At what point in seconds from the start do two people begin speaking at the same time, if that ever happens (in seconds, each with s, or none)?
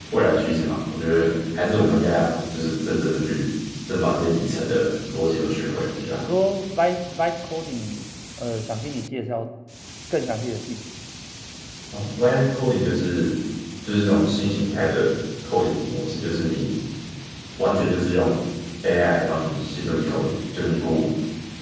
none